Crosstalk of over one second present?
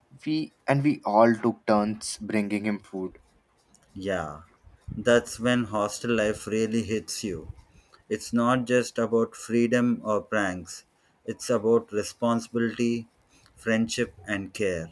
No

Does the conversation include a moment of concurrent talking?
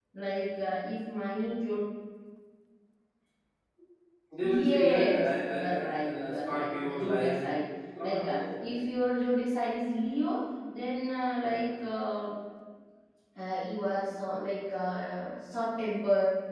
Yes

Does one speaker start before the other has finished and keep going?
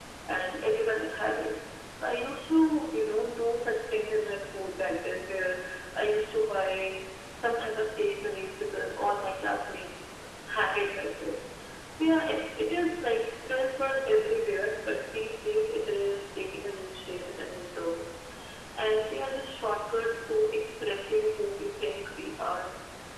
No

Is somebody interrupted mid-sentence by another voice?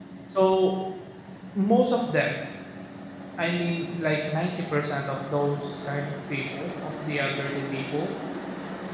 No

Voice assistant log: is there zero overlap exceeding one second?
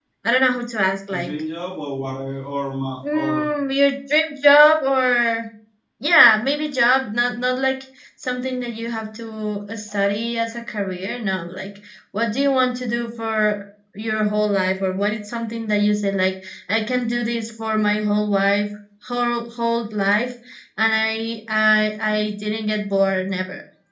Yes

